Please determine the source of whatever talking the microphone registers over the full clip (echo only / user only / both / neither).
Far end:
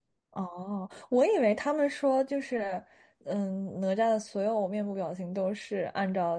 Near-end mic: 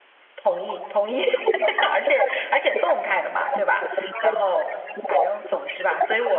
both